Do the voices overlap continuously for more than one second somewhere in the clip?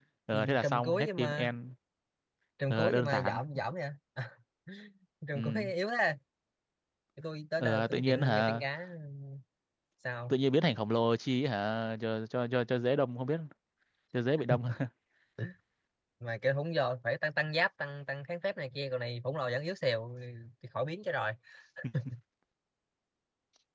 Yes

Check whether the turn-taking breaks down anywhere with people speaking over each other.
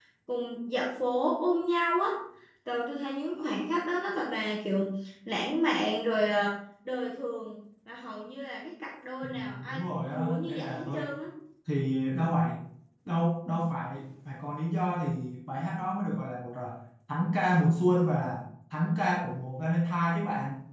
Yes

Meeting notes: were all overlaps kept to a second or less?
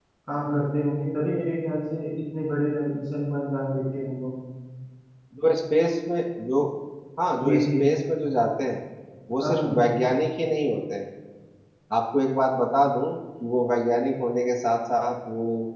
Yes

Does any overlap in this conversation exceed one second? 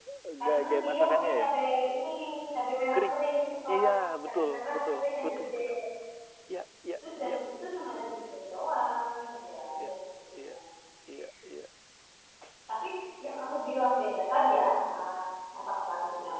Yes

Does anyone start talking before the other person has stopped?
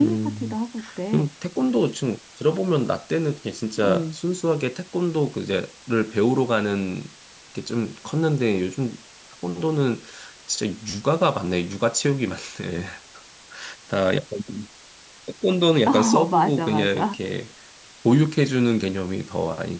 Yes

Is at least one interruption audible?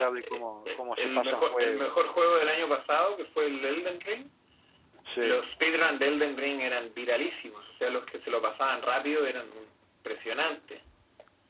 Yes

